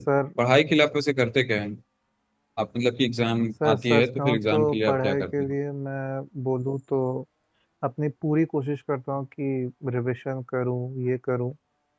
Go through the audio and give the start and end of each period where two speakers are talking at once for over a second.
3.6-5.5

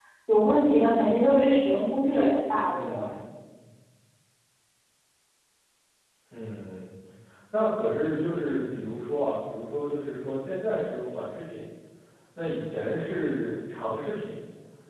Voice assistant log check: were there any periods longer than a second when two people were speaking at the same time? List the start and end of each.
none

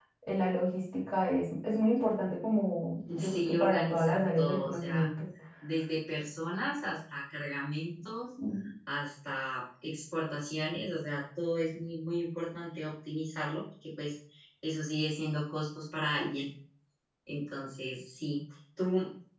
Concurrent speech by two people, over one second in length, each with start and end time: 3.2-5.0

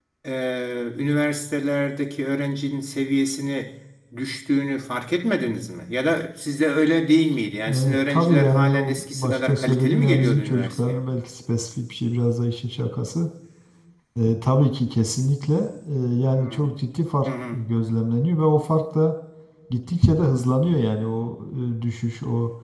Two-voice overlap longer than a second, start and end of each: 7.7-11.0

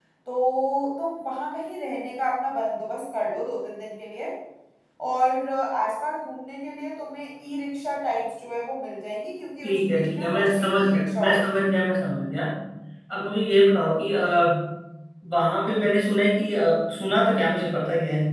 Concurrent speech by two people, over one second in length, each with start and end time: 9.6-11.6

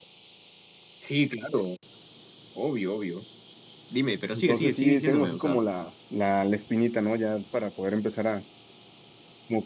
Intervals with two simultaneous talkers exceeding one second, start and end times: 4.3-5.6

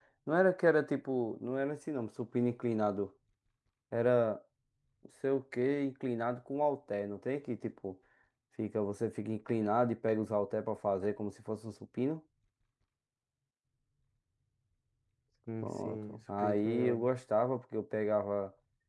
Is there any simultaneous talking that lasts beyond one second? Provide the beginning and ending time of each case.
15.6-17.1

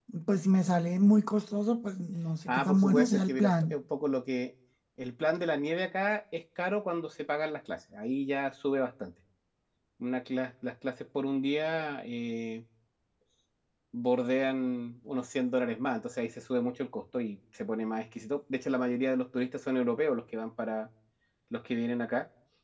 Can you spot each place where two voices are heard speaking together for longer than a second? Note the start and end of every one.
2.5-3.8

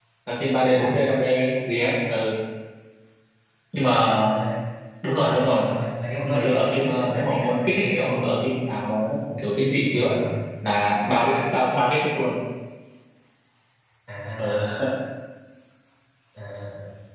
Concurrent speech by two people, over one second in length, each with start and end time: 6.2-8.2

